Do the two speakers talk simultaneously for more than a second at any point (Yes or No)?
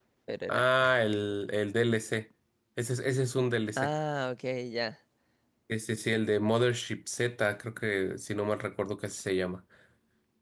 No